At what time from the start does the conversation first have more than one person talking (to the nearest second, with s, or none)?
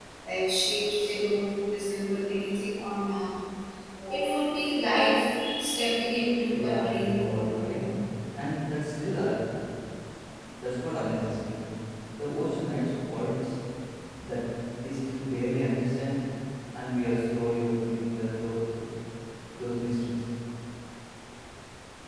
7 s